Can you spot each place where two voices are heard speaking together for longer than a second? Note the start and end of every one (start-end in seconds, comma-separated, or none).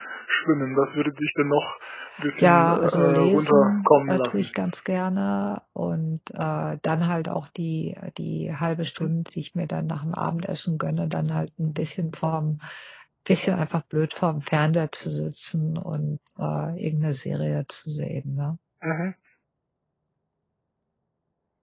2.4-4.5